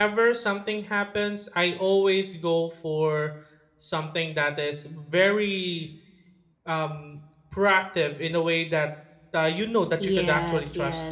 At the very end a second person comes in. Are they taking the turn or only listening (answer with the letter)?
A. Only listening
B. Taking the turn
B